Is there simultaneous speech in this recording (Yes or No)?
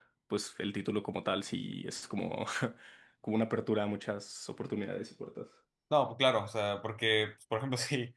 No